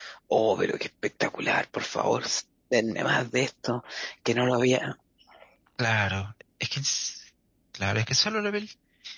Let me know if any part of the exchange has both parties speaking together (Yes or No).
No